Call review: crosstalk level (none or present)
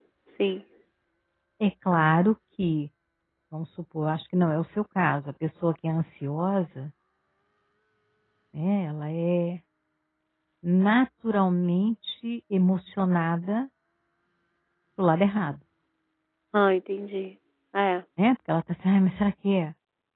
none